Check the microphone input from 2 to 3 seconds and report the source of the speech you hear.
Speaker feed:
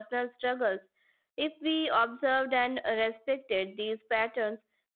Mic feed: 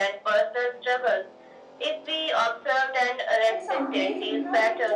echo only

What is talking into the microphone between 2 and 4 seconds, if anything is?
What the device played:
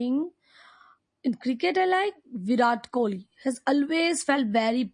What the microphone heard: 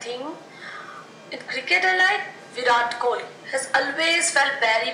echo only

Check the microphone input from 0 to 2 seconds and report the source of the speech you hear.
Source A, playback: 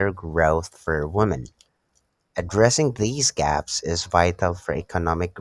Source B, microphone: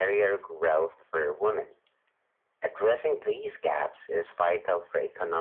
echo only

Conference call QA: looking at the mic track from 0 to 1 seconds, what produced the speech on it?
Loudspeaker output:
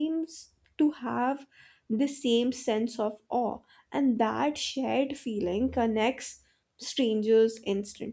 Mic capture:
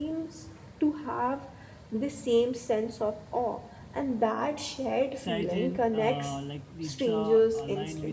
echo only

